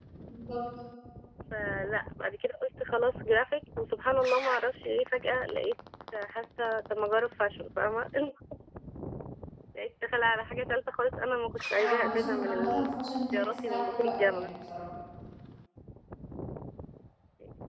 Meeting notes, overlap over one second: present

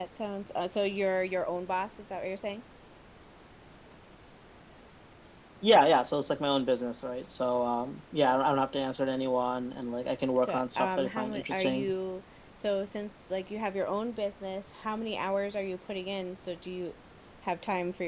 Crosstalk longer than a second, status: present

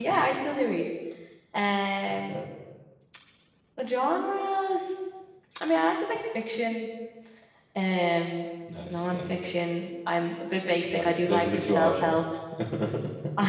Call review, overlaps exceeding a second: present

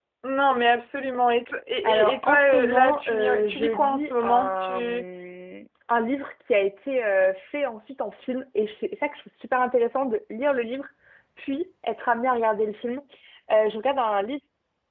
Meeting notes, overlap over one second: present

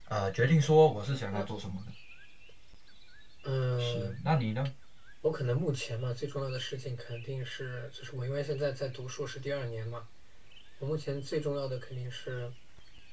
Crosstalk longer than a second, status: none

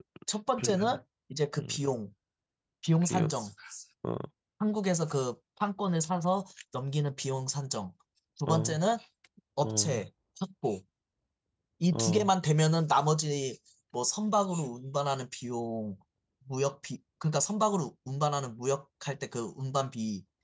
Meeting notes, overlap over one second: none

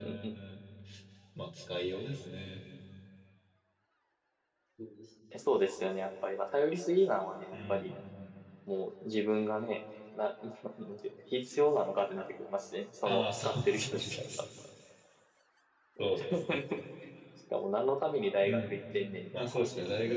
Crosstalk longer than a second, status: present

